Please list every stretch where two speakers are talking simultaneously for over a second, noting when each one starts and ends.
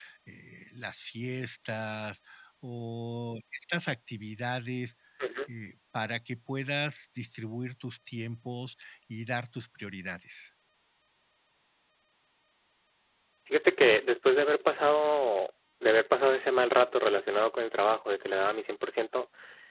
none

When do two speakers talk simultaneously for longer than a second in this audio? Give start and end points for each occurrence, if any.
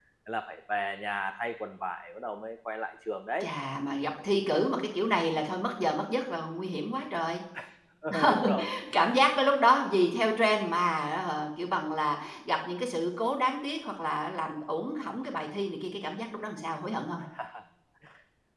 none

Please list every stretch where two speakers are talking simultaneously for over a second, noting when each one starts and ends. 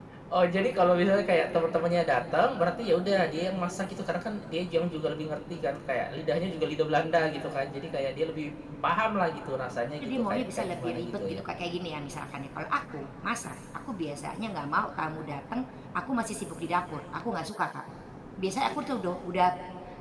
10.0-11.4

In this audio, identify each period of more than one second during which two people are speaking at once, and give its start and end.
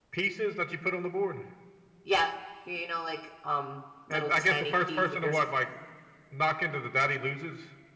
4.1-5.4

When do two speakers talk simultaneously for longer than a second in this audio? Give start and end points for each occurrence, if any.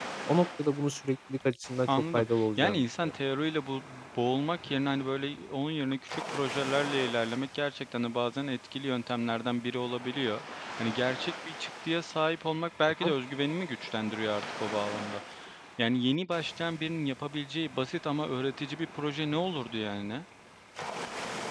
1.9-3.1

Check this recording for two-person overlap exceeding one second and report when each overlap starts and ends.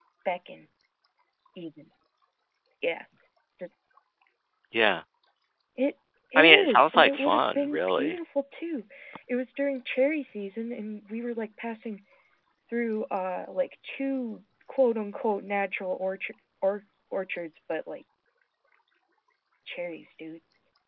6.4-8.2

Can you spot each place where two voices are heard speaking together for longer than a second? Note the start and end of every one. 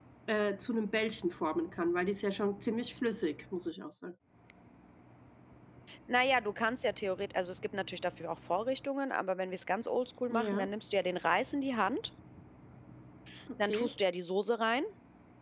none

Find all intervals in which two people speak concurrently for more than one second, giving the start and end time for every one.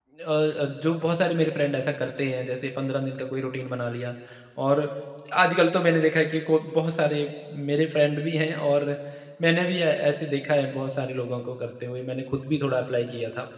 none

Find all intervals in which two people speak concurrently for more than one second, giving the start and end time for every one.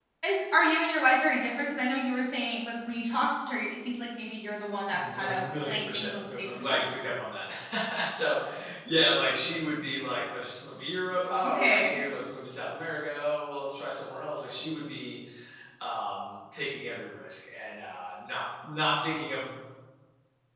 4.9-6.8

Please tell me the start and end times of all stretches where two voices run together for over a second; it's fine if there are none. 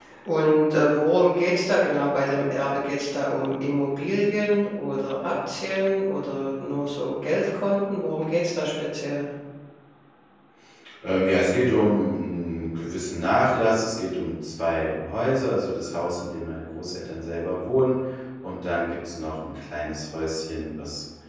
none

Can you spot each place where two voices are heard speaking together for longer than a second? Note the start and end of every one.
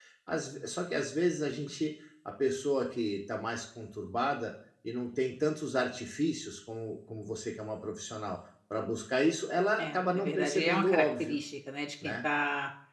9.8-11.4

